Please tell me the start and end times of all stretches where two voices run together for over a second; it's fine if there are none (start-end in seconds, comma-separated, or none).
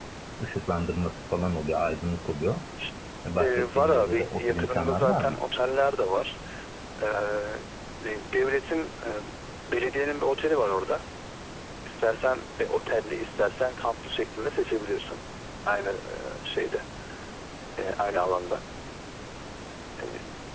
3.4-5.4